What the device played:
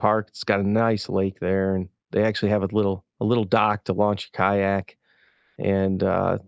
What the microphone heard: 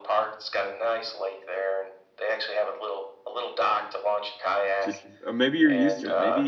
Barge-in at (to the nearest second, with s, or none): 5 s